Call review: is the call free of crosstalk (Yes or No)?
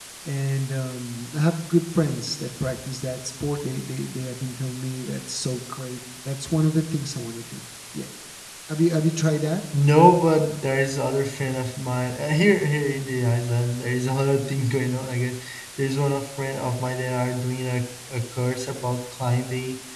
Yes